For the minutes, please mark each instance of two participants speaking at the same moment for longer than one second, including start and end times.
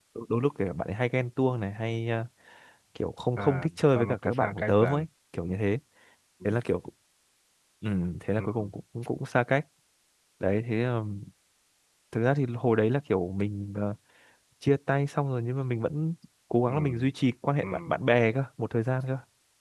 3.4-5.0

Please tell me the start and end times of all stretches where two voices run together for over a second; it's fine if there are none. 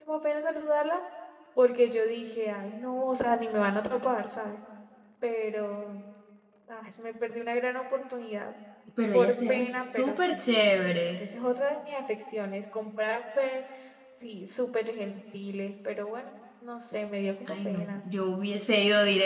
9.1-10.4

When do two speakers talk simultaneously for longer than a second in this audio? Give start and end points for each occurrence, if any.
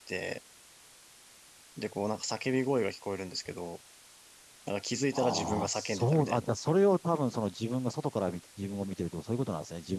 5.1-6.5

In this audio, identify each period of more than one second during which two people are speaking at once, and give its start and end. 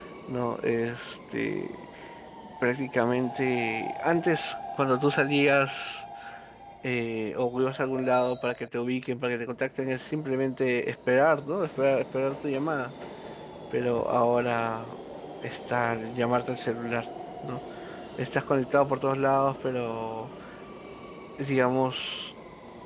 none

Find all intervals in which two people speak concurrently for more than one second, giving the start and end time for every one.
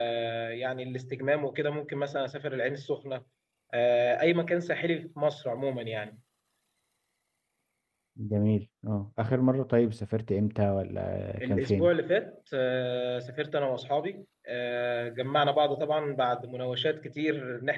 none

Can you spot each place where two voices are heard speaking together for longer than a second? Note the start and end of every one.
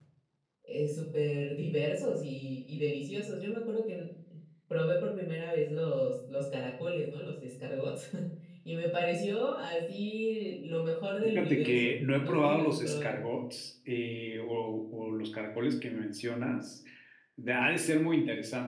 11.2-13.2

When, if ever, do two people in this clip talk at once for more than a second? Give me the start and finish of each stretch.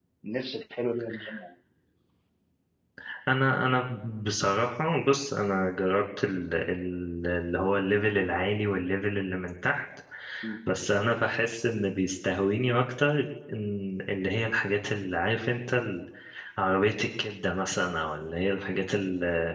none

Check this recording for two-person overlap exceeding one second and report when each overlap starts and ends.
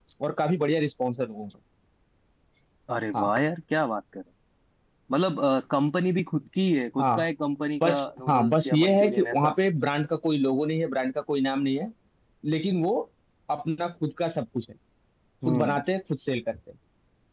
7.8-9.5

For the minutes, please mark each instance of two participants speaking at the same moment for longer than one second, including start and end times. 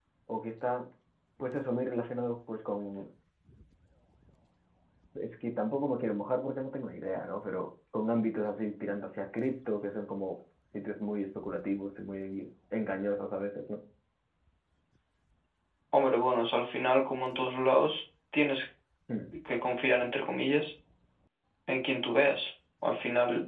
none

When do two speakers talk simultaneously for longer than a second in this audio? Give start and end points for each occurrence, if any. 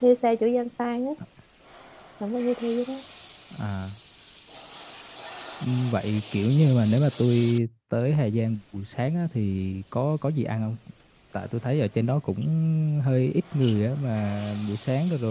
none

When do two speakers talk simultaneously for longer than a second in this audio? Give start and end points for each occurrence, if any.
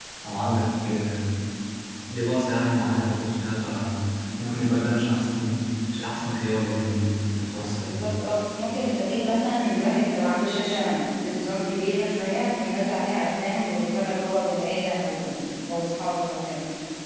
none

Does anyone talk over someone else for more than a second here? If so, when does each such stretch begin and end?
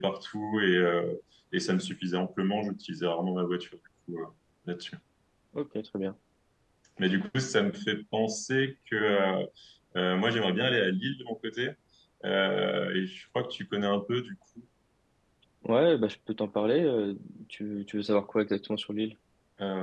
none

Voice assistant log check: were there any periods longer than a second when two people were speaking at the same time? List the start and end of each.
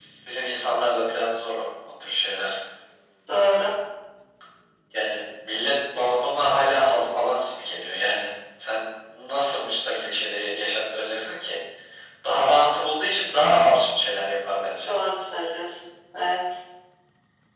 none

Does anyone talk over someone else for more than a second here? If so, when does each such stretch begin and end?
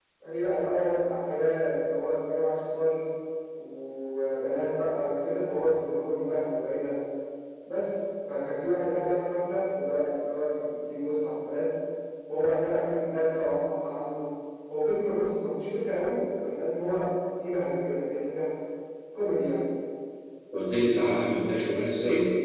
none

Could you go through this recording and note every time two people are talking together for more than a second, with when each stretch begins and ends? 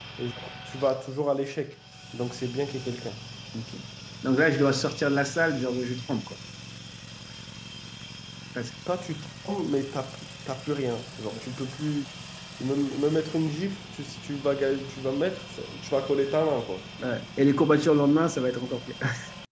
none

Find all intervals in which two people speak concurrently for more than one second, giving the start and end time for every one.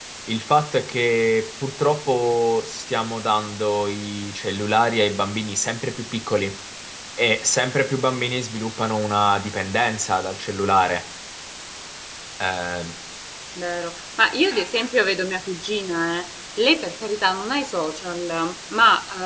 none

